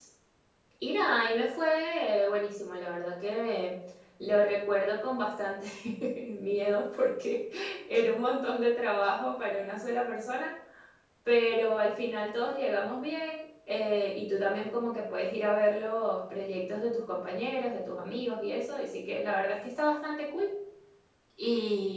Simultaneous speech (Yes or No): No